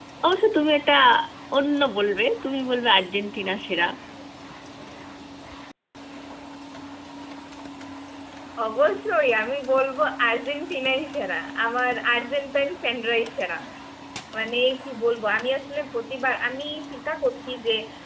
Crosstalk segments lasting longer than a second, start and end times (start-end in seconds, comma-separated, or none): none